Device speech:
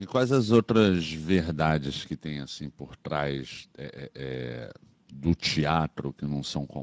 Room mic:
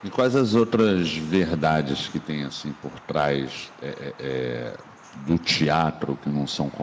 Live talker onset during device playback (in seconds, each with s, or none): none